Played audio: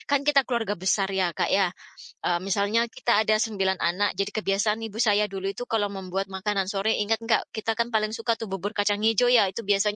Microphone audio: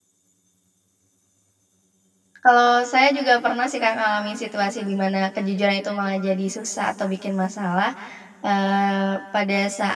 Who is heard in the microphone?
user only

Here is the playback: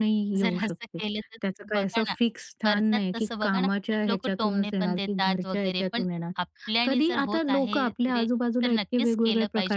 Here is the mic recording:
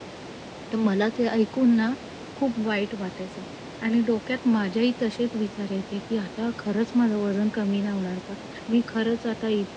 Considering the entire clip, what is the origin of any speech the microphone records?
user only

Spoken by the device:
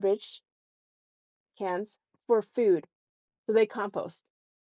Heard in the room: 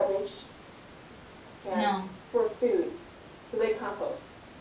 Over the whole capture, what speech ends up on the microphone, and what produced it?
both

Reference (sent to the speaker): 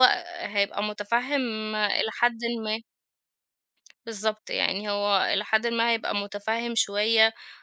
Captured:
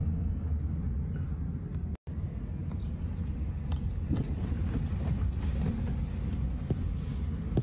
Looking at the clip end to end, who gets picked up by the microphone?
neither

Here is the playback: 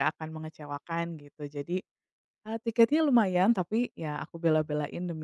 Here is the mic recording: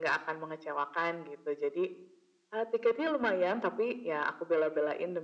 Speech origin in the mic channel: echo only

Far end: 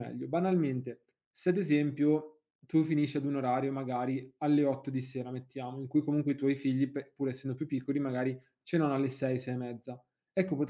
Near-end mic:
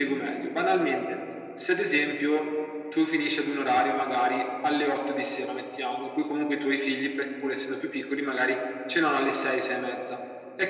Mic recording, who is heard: echo only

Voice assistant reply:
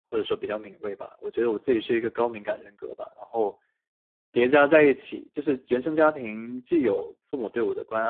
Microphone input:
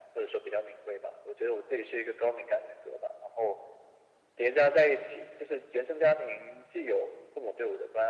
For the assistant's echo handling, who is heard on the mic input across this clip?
echo only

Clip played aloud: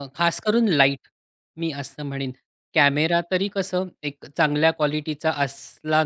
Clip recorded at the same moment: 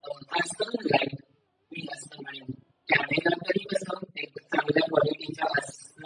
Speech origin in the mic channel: echo only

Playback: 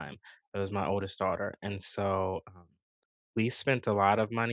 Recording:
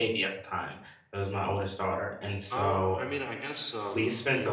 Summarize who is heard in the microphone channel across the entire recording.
both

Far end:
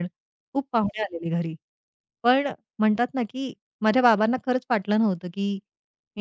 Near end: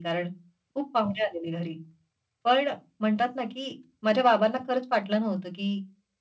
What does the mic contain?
echo only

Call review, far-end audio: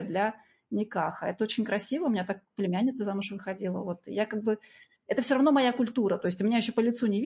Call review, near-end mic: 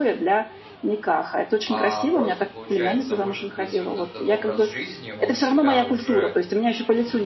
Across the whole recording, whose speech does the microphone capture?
both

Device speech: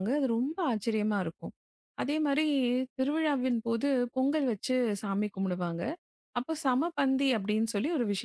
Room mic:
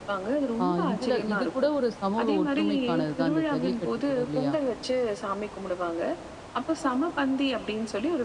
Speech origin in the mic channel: both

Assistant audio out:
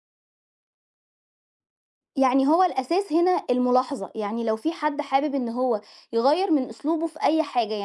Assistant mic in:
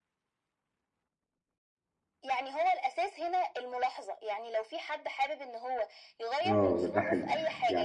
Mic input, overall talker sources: both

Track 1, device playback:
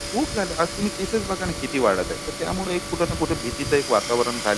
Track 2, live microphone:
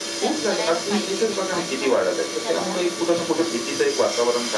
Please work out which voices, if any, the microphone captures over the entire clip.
both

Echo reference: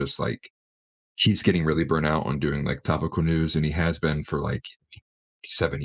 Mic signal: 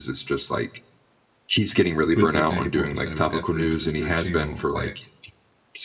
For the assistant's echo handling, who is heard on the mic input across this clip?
both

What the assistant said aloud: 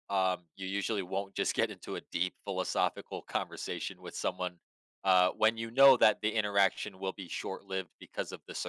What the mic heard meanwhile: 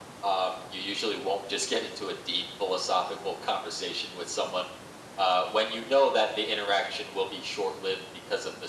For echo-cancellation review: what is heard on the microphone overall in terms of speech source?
echo only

